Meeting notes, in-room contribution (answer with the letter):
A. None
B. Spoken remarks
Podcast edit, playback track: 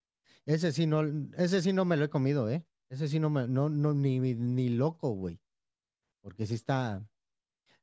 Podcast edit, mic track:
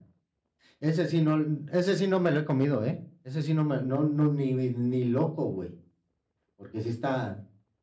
A